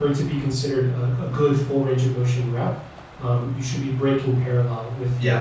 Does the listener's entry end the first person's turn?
No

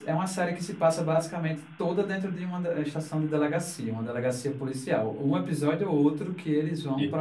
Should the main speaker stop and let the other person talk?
No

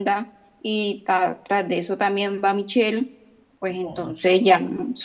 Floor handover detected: No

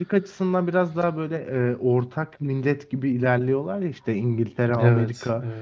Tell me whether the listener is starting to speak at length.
No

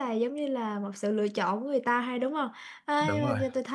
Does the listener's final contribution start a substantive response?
No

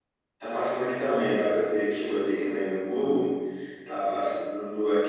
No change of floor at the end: Yes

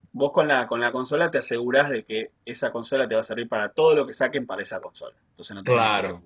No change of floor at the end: No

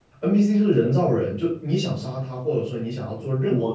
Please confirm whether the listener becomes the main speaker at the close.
No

